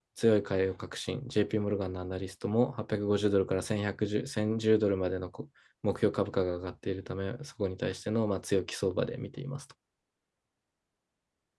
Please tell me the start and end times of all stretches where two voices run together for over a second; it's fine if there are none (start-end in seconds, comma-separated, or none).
none